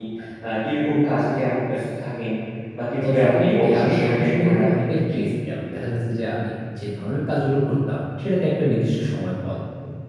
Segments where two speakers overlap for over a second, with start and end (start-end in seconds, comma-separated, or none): 3.0-5.2